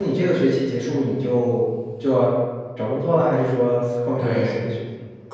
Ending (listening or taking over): taking over